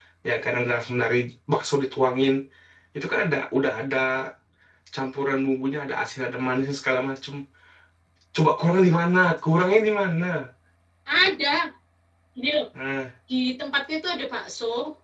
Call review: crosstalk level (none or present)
none